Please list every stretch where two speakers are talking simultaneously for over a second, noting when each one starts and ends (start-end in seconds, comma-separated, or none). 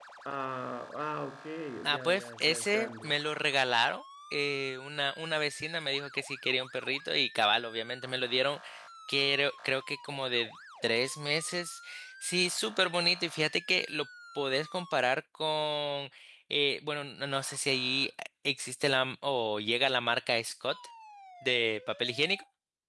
1.9-3.1